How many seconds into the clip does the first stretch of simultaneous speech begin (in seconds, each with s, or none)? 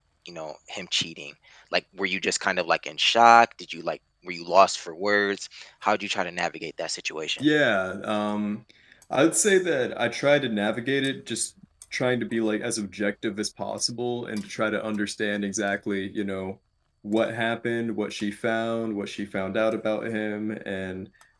none